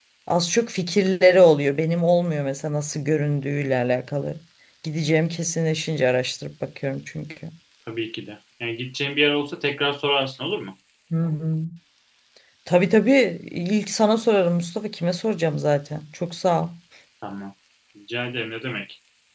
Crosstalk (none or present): none